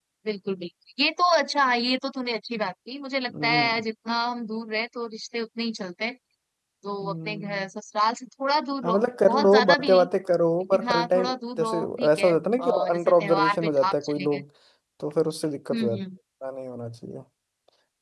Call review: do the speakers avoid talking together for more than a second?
No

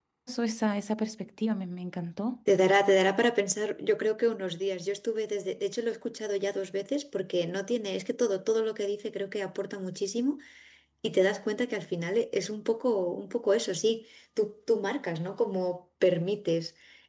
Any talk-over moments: No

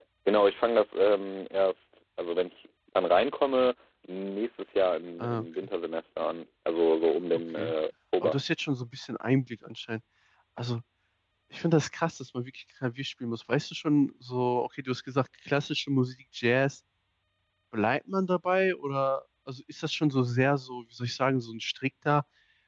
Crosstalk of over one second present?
No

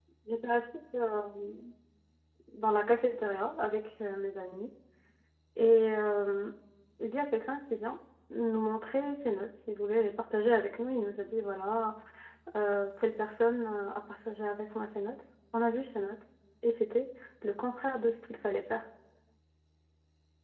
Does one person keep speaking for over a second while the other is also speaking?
No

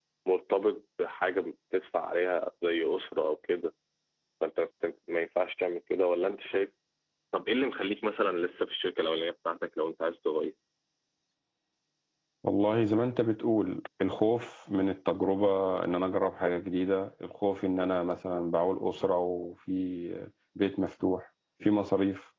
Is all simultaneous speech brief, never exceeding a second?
Yes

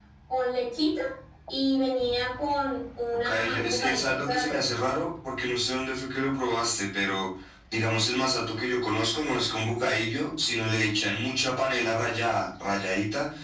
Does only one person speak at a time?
No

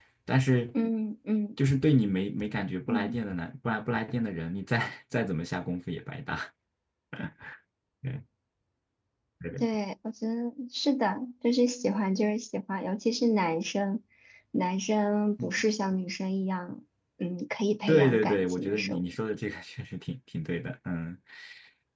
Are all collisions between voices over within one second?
No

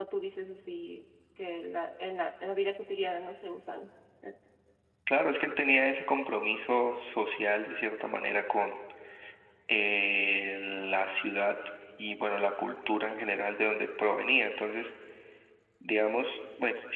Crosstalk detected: No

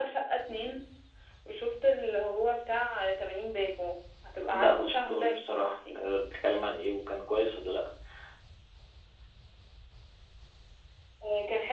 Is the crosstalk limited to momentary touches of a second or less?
No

